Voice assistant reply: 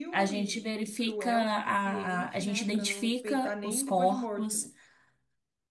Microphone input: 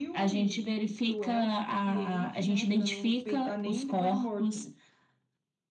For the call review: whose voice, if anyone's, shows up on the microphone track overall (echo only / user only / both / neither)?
echo only